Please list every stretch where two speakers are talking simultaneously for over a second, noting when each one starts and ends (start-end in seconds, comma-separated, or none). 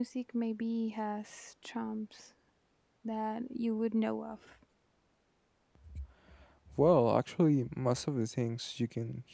none